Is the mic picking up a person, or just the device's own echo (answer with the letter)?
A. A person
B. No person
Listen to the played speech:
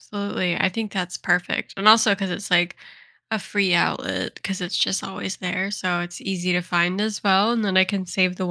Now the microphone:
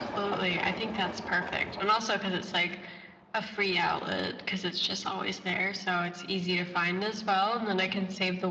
B